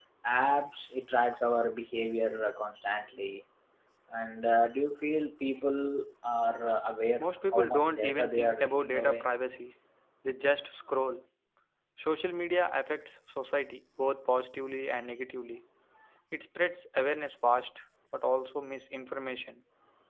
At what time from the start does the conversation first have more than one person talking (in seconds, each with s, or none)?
7.2 s